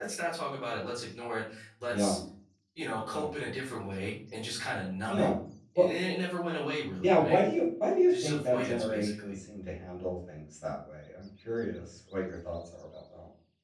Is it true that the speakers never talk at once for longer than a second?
No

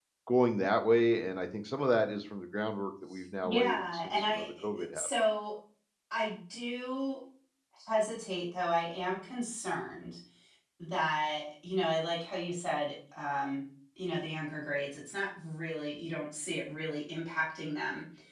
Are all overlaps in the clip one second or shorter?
No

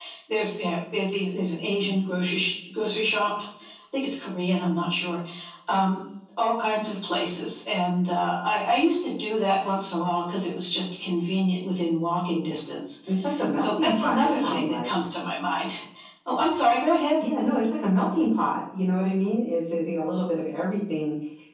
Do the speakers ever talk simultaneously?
Yes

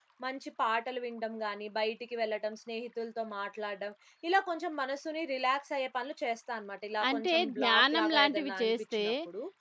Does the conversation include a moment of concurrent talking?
Yes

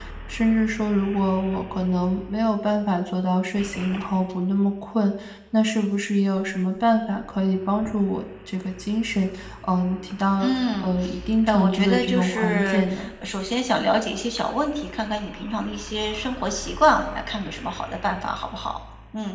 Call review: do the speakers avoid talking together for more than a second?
No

